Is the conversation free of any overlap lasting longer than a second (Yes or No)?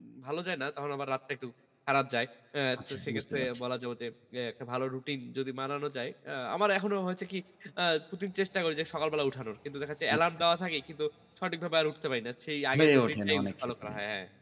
No